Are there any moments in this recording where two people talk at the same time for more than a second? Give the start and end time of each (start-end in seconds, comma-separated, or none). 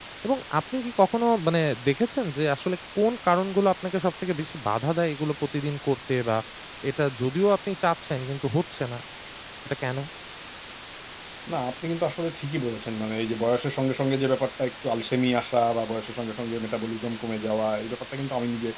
none